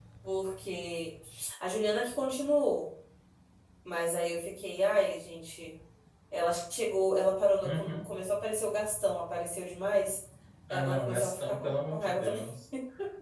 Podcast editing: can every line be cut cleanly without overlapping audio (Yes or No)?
No